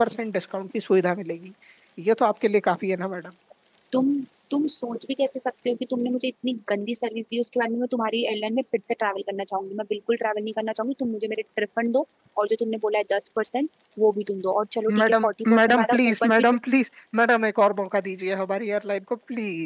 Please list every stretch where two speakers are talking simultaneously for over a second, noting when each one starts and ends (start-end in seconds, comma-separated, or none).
15.0-16.4